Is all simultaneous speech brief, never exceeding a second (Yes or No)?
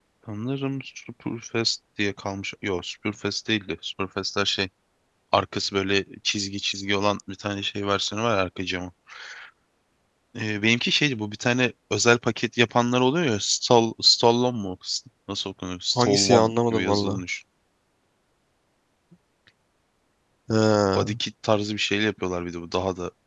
No